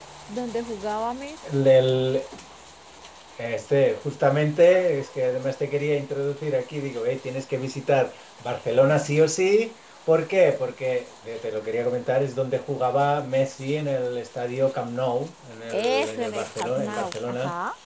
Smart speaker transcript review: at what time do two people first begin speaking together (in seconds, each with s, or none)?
15.7 s